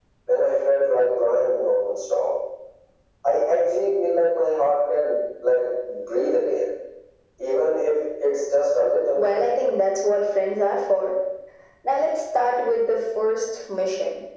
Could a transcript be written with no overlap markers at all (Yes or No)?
Yes